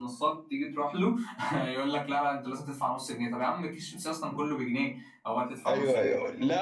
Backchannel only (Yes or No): No